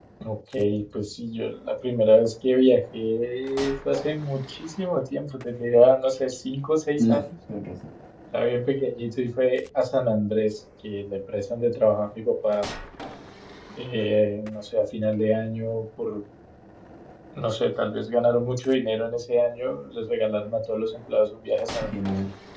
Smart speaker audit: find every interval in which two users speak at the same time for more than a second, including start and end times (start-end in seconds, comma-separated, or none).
none